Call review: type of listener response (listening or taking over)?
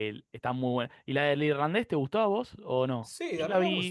taking over